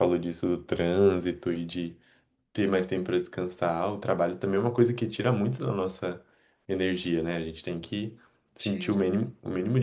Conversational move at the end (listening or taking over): listening